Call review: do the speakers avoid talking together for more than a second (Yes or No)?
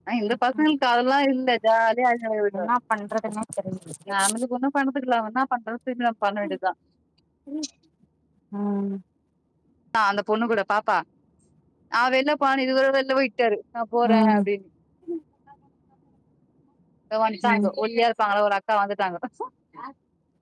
Yes